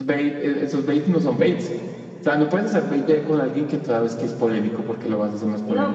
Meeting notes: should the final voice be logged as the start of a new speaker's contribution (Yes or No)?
Yes